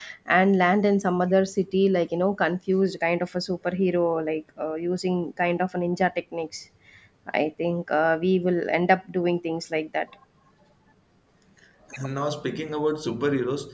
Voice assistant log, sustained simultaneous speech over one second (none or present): none